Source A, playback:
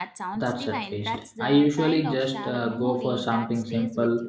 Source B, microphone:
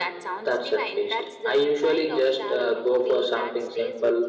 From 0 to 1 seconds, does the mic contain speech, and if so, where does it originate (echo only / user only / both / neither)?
echo only